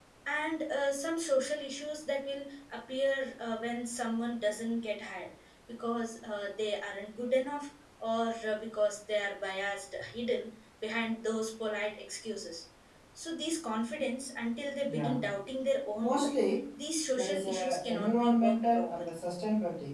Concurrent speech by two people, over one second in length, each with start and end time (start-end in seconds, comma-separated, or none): 17.1-19.1